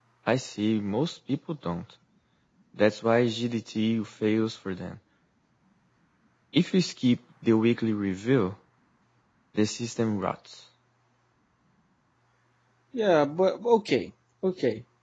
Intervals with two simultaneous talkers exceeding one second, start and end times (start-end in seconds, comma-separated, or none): none